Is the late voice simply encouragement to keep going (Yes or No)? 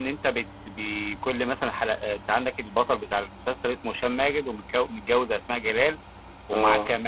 Yes